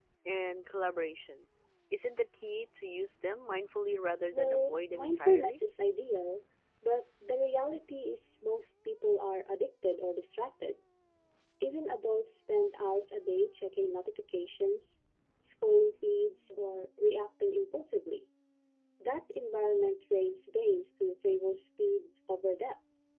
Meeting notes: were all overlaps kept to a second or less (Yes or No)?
No